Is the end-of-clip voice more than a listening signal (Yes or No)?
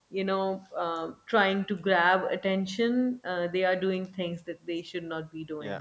Yes